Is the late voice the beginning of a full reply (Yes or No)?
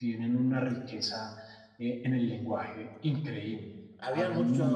Yes